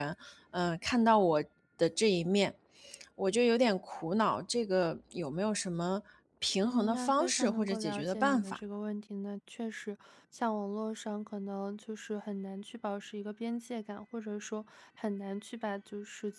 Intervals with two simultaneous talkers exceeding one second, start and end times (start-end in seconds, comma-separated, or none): 6.6-8.6